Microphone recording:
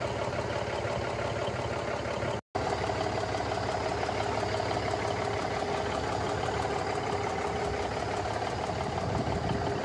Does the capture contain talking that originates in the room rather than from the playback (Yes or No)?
No